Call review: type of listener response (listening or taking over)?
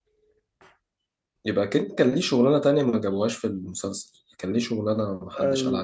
taking over